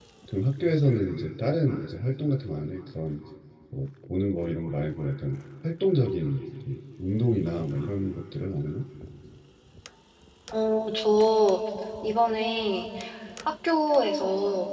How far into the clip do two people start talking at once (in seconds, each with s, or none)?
none